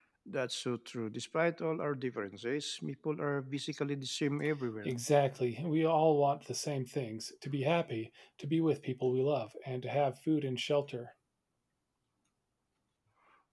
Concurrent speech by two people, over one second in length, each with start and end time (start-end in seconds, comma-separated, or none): none